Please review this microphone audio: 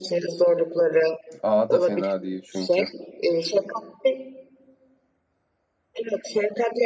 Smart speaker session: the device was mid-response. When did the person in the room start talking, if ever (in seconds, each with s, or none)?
1.4 s